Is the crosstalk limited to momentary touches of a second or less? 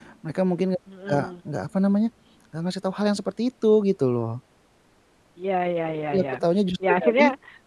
Yes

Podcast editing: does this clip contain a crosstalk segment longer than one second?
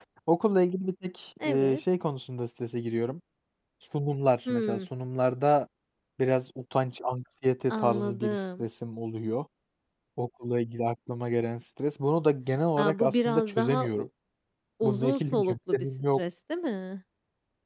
Yes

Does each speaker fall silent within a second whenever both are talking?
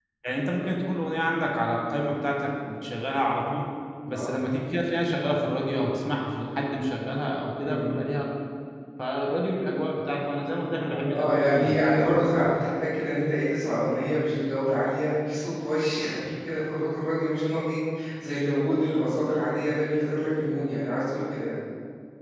No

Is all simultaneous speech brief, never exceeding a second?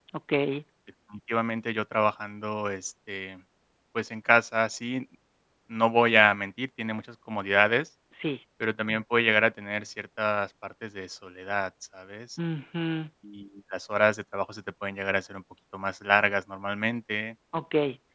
Yes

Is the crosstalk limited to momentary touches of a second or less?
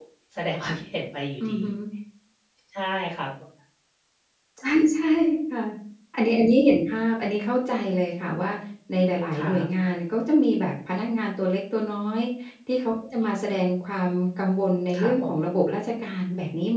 Yes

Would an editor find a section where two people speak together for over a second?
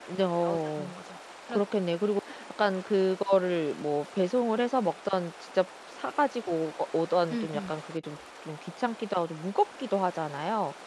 No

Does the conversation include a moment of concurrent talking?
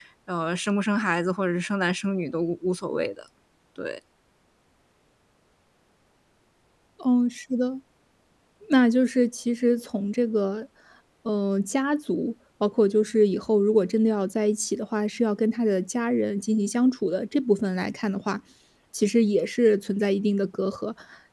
No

